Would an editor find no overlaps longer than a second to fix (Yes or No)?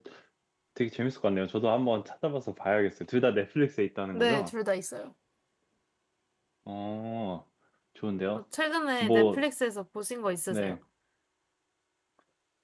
Yes